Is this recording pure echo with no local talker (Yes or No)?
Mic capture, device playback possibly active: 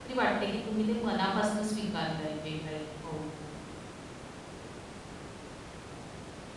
No